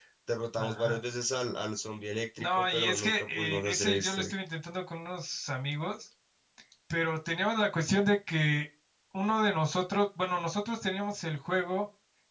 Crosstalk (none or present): present